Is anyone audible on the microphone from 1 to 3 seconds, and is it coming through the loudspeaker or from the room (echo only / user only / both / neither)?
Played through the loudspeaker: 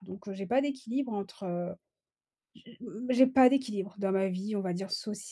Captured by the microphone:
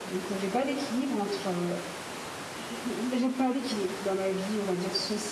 echo only